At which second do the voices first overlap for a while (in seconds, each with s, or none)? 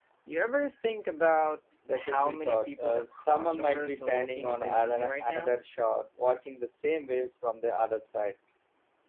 1.9 s